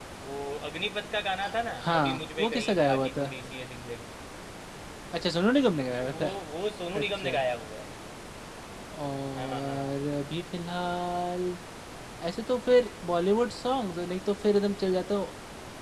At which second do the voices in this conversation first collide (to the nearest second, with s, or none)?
2 s